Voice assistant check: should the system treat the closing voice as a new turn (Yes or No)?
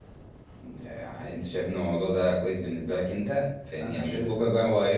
No